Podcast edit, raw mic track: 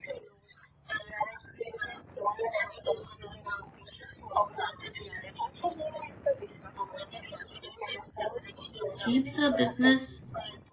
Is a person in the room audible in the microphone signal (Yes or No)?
Yes